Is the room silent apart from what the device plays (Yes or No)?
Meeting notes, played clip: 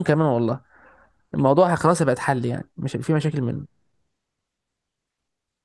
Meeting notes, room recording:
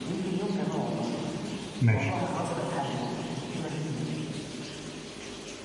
No